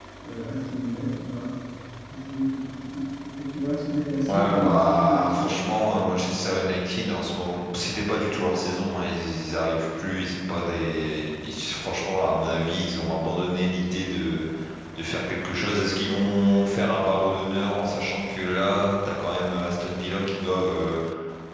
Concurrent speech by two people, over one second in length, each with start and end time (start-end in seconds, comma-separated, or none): 4.3-6.2